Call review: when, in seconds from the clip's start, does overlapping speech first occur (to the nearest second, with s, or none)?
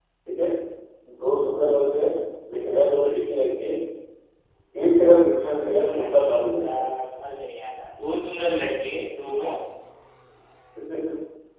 6 s